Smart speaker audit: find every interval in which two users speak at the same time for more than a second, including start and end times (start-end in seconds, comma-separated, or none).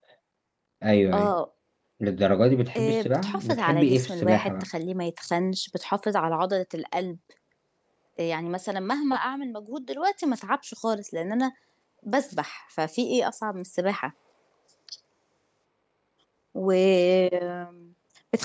2.8-4.7